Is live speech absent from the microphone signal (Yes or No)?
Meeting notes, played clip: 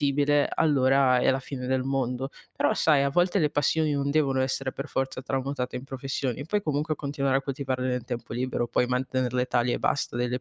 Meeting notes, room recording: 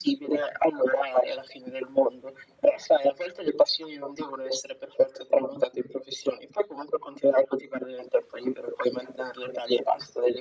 Yes